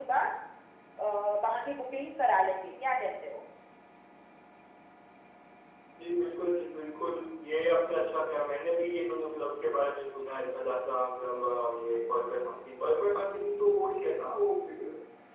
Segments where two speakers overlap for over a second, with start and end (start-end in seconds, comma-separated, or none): none